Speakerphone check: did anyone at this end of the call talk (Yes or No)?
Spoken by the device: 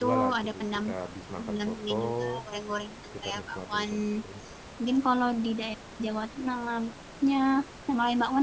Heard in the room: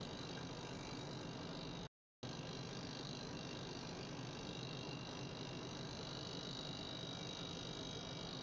No